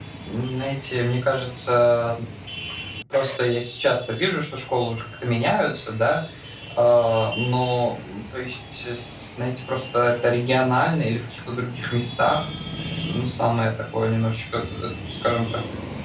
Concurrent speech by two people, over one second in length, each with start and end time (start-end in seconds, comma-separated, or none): none